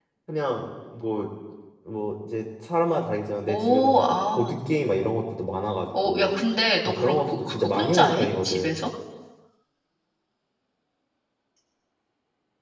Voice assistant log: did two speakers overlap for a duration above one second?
Yes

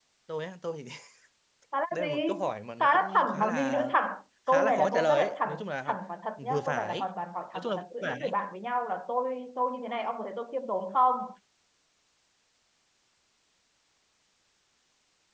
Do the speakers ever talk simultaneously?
Yes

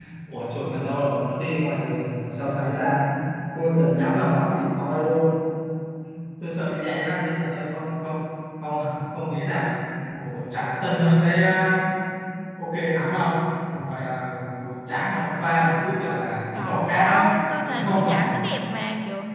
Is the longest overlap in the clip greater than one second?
Yes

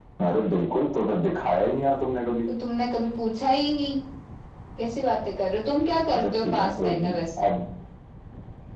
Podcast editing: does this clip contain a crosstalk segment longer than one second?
Yes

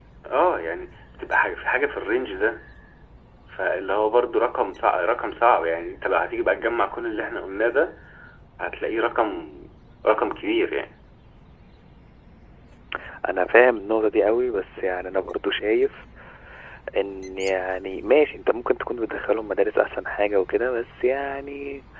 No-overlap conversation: Yes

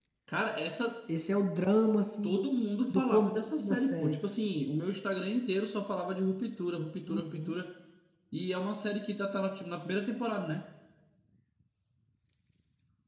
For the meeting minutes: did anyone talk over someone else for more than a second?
Yes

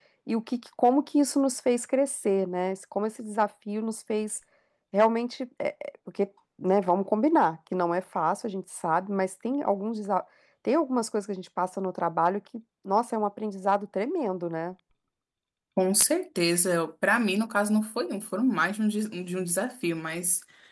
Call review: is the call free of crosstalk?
Yes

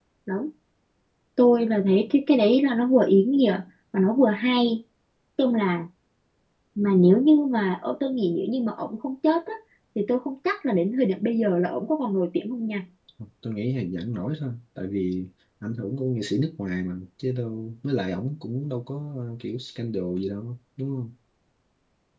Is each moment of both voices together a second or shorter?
Yes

